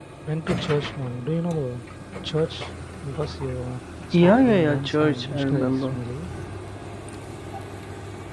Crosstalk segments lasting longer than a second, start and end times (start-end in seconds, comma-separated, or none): 4.1-5.9